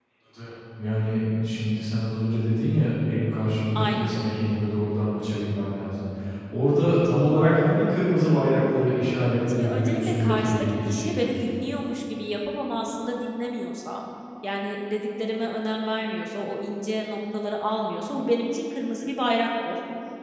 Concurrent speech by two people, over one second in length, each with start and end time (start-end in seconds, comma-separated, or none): 9.5-11.4